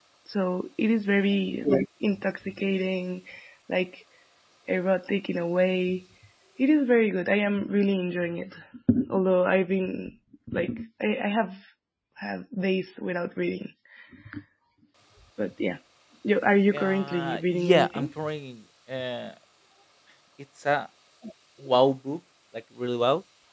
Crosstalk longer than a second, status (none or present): present